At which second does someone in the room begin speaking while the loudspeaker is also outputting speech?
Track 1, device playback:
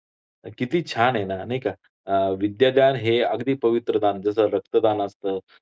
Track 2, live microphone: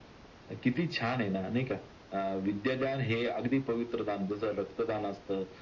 none

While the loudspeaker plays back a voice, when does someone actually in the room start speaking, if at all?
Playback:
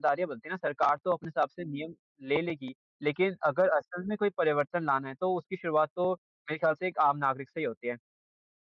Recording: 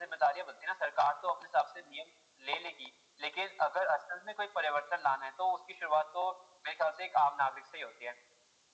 none

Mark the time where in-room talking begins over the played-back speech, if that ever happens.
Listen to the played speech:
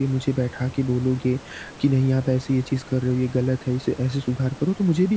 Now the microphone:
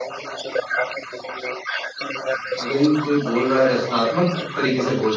2.6 s

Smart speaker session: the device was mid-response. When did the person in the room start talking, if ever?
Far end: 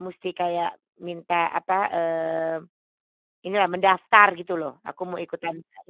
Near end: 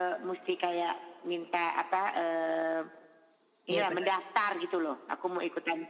3.7 s

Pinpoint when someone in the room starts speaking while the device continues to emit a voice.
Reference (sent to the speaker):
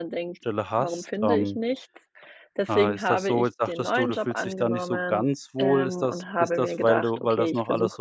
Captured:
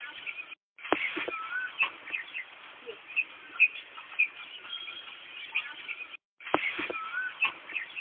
none

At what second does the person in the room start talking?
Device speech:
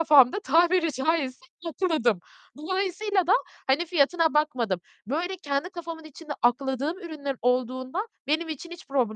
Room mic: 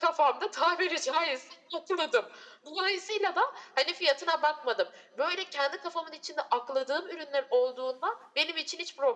none

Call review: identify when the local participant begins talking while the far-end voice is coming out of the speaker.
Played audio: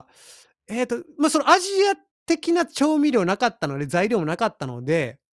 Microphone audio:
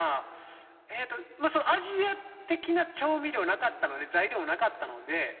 none

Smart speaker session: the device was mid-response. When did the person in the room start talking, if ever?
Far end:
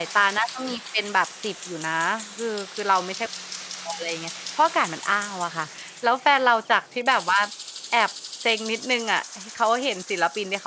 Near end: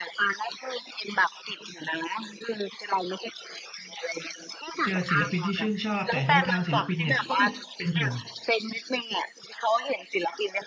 4.8 s

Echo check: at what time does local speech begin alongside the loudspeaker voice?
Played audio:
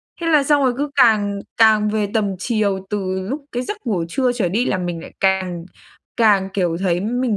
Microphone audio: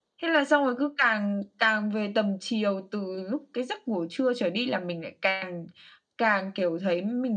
none

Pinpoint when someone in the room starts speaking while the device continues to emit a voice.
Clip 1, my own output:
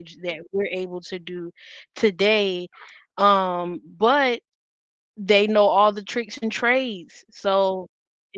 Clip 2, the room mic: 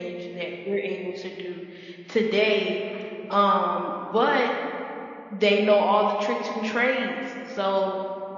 none

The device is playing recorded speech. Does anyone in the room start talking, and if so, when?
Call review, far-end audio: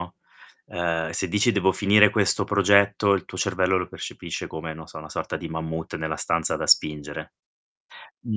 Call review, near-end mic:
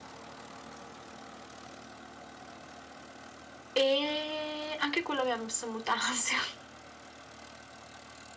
3.7 s

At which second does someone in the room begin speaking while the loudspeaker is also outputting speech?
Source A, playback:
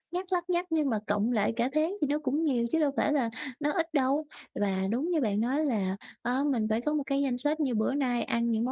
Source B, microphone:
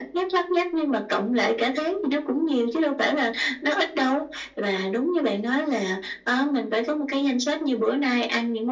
none

